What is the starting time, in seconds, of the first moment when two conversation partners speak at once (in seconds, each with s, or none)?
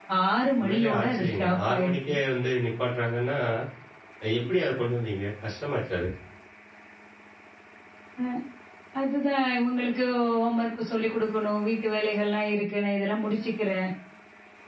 0.6 s